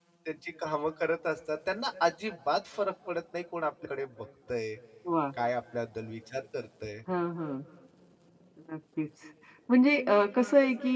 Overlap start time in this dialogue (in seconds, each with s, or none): none